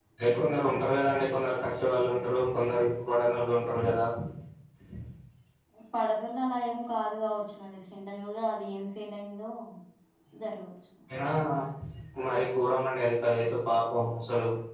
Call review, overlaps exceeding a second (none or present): none